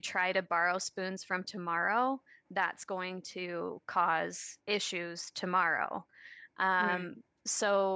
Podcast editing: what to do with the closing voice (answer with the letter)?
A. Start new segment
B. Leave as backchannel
B